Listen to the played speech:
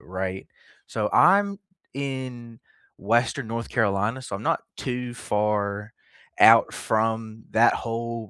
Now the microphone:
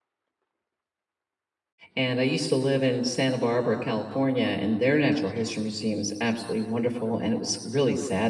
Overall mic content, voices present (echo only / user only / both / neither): user only